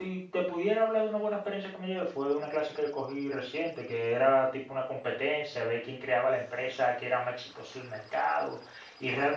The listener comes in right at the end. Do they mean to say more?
No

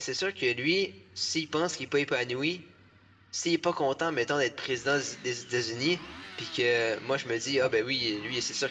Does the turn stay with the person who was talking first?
Yes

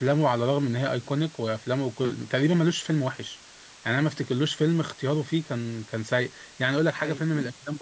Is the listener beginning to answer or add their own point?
No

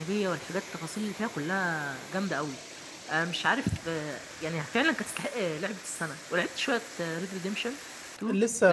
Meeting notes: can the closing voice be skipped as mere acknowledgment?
No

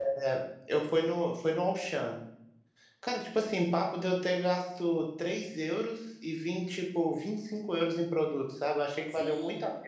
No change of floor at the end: No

